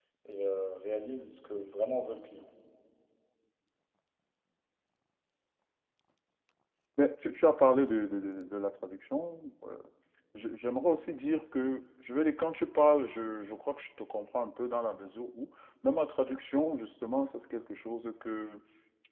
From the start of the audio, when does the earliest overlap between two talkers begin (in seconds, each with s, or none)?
none